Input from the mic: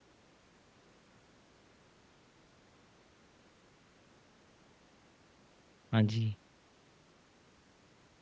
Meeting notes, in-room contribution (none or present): present